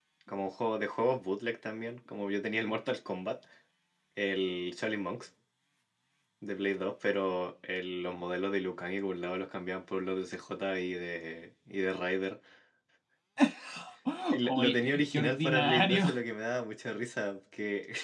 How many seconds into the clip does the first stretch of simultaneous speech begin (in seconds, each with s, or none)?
14.4 s